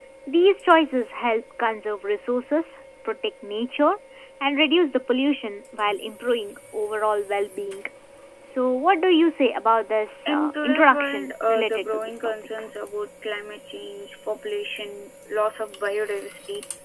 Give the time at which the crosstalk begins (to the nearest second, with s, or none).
10 s